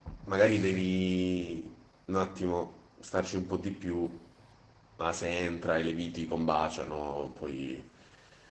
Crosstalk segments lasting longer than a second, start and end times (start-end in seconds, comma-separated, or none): none